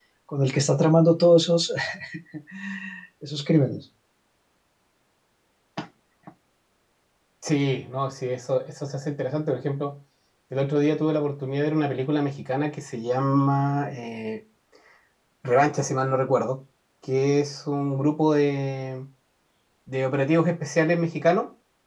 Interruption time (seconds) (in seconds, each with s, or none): none